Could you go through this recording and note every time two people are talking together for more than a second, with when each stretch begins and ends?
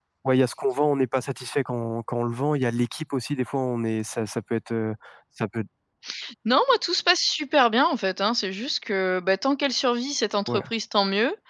none

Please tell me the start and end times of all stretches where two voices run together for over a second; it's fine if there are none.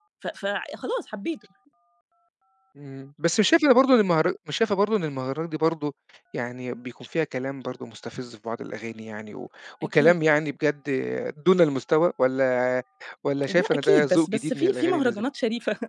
13.5-15.2

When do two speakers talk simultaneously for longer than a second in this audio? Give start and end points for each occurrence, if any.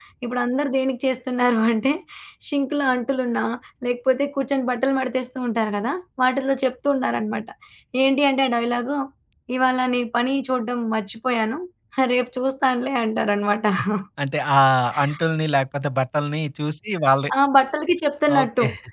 none

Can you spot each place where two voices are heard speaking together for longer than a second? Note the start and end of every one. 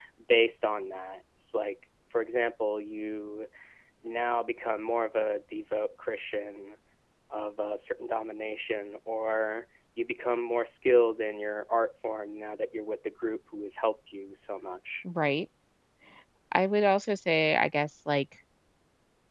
none

